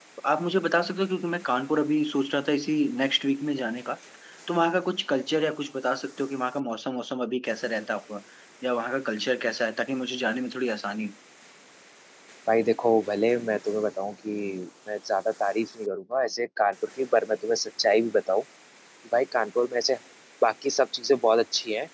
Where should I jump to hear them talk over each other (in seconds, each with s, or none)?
none